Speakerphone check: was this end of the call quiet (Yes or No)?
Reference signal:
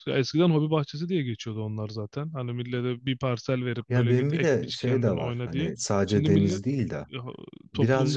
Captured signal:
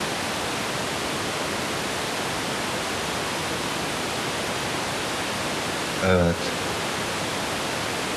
No